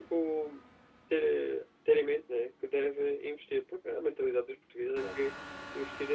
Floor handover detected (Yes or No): No